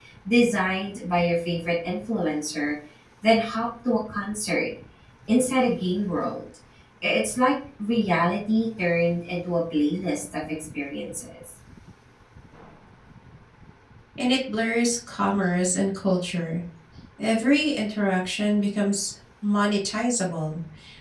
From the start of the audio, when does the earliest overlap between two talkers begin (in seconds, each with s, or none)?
none